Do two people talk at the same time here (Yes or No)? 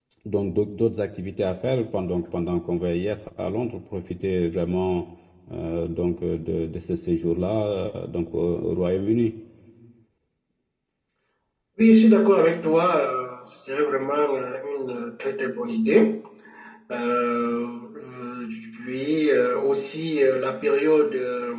No